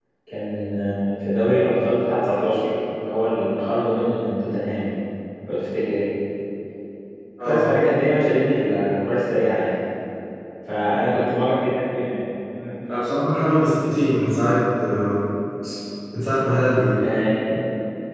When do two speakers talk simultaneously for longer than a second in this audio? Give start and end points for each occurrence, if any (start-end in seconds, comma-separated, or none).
none